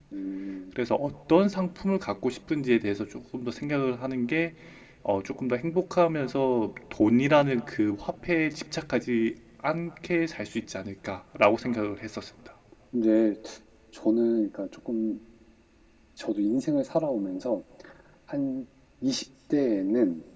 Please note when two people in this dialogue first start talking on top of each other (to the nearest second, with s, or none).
none